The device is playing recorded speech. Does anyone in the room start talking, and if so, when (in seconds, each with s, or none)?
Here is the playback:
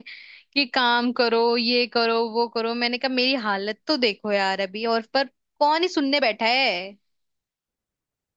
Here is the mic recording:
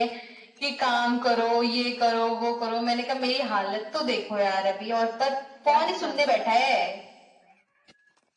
5.6 s